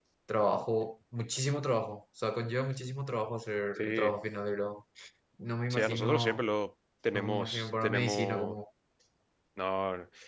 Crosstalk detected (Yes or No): Yes